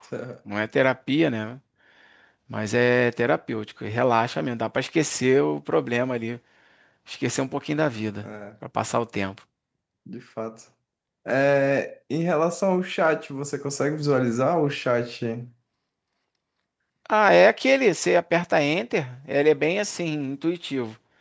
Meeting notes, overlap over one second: none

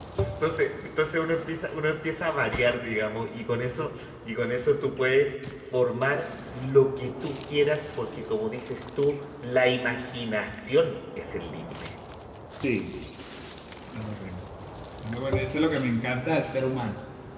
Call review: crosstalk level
none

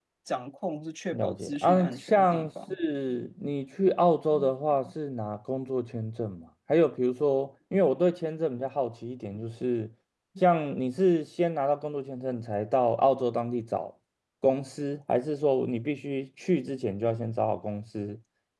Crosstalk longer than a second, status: present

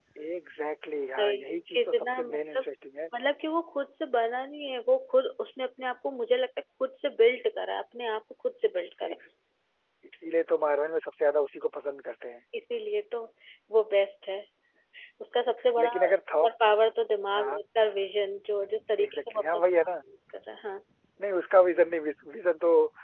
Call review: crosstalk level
present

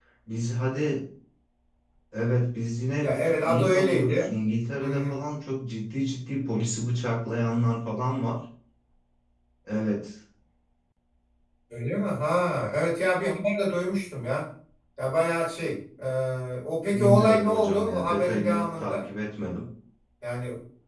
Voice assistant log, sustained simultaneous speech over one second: present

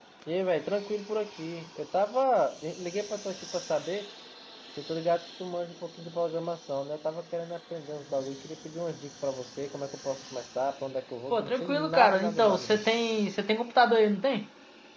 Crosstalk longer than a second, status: present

